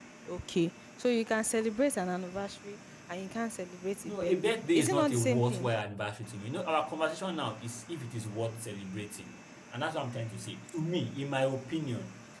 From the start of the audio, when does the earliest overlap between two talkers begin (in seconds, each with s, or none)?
4.0 s